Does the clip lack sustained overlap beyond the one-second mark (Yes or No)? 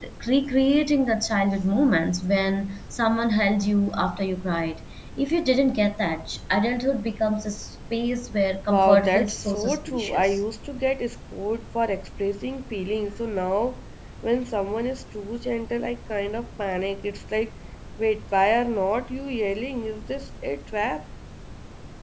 No